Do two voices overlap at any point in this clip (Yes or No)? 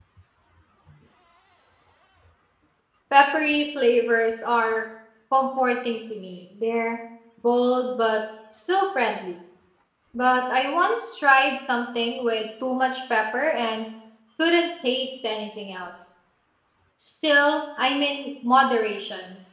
No